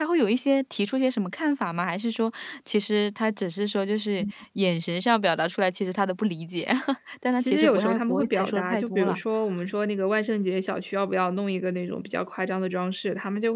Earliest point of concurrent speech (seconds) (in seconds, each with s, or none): 7.4 s